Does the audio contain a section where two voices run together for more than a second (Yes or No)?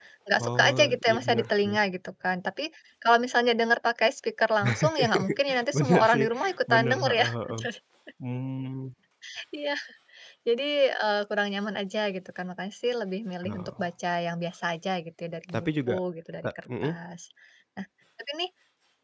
Yes